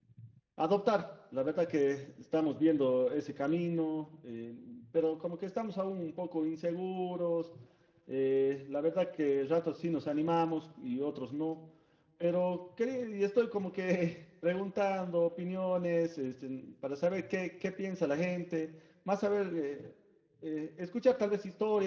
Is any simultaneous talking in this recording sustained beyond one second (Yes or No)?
No